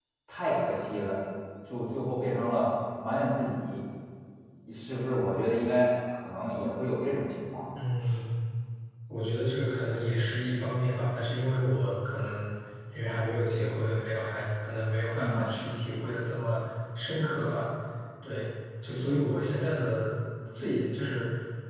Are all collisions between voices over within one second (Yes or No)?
Yes